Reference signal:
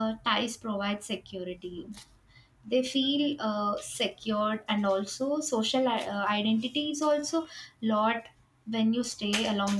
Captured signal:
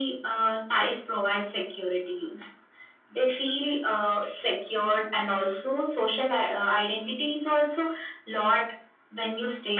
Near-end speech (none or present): none